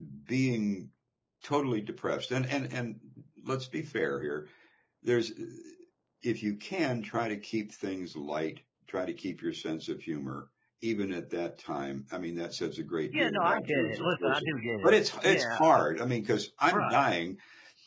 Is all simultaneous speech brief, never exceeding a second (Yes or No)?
No